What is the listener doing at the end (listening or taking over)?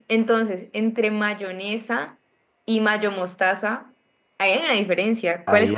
taking over